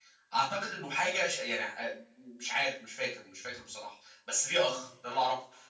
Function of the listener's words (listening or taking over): listening